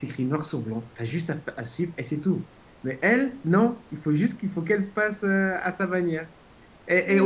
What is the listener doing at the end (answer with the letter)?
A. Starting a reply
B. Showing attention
B